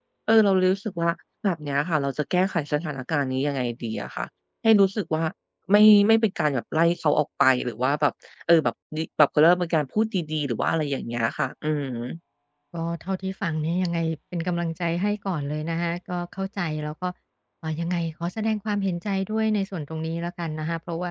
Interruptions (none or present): none